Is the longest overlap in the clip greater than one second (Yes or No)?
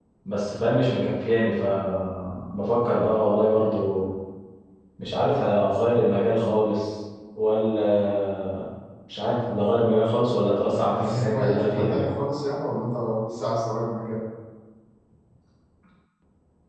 Yes